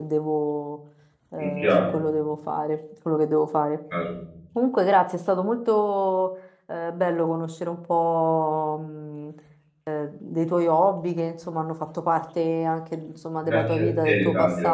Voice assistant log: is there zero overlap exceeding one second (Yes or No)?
No